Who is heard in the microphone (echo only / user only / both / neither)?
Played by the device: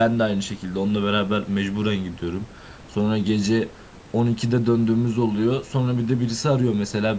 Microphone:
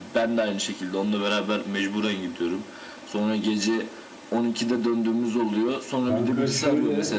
both